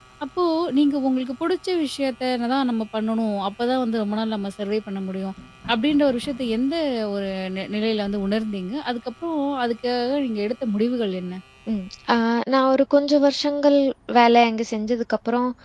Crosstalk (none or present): none